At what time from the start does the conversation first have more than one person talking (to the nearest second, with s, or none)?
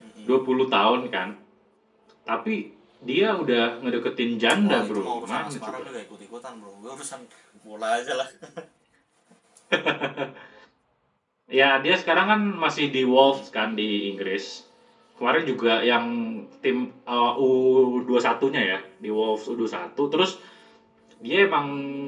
5 s